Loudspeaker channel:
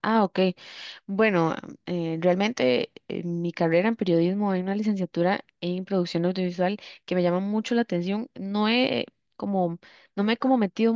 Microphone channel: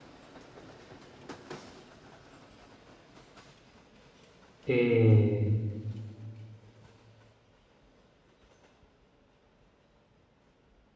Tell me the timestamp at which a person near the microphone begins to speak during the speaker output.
4.7 s

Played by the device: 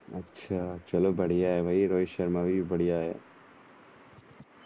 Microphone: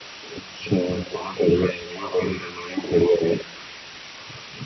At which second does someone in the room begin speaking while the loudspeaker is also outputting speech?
none

